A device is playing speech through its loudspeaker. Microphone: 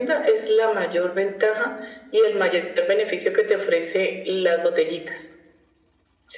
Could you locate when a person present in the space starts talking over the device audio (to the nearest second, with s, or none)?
none